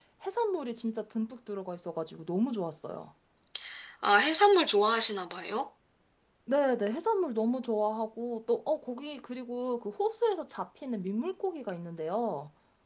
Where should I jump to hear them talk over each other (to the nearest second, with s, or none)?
none